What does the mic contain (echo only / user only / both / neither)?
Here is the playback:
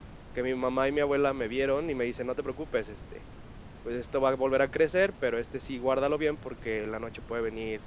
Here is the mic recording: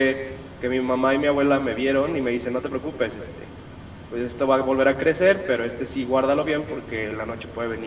echo only